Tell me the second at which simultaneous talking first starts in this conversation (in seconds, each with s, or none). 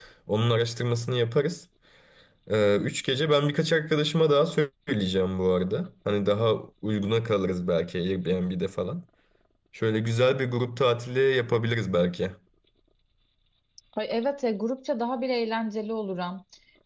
none